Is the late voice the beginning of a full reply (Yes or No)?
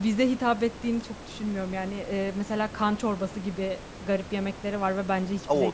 Yes